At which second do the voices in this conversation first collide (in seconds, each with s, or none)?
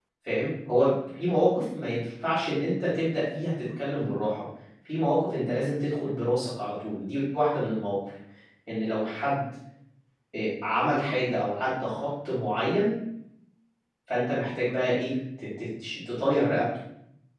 none